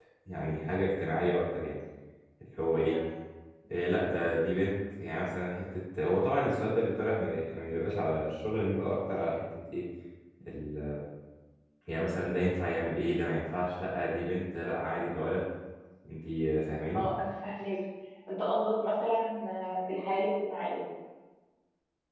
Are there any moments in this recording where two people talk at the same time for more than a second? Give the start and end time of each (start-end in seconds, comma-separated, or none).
none